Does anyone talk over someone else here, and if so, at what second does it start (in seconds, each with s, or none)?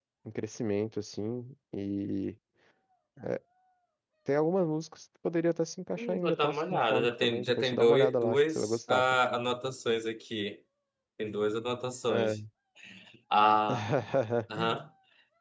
6.0 s